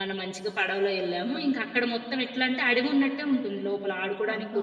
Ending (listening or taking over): taking over